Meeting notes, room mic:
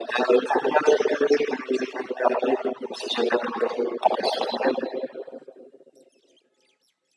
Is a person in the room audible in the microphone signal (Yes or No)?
No